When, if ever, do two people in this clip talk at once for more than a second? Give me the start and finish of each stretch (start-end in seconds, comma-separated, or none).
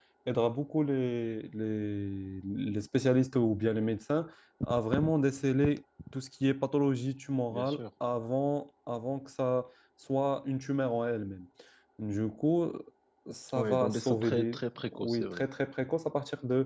13.6-15.4